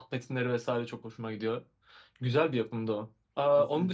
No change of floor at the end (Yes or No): Yes